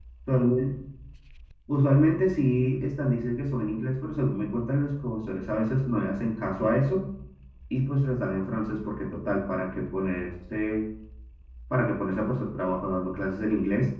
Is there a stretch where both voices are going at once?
No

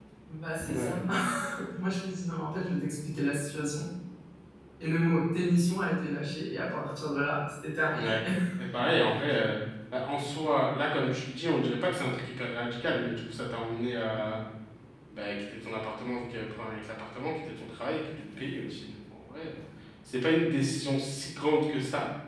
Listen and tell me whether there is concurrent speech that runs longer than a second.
No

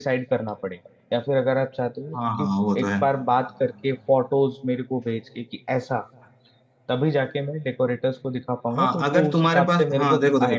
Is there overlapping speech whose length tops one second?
Yes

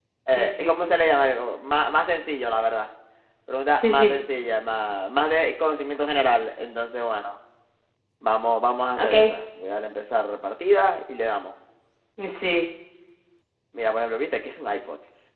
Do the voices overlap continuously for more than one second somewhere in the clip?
No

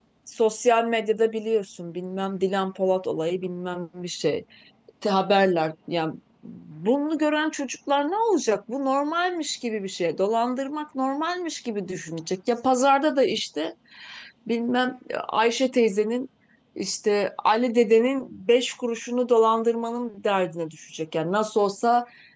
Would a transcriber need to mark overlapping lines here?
No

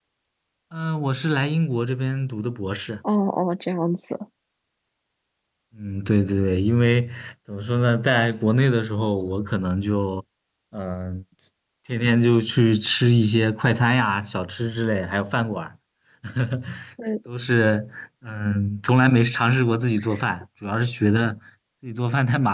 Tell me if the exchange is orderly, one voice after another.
Yes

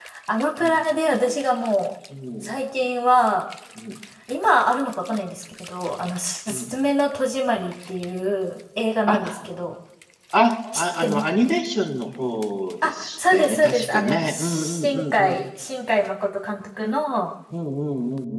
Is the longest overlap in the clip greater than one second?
Yes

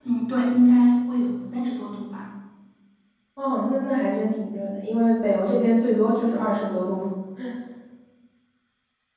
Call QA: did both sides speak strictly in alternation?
Yes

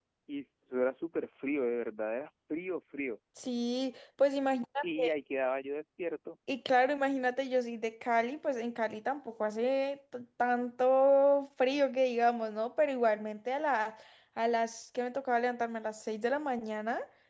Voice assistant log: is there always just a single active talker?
Yes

